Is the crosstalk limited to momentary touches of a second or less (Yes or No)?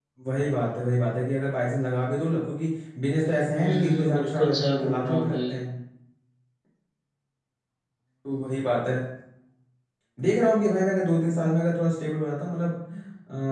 No